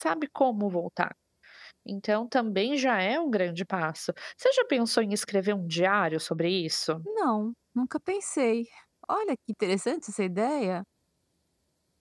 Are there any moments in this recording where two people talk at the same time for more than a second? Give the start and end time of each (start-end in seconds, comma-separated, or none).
none